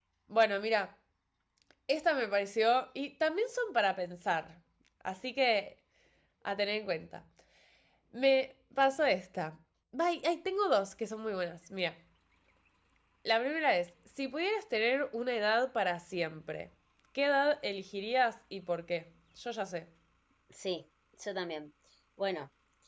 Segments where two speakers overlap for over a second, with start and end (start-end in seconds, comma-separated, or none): none